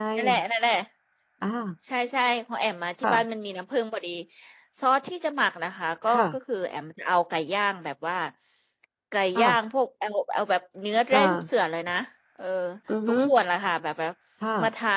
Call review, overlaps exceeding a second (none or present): none